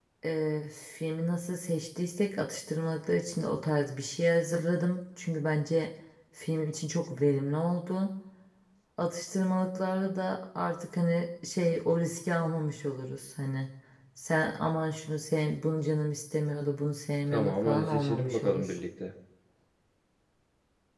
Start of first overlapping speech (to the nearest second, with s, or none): 17 s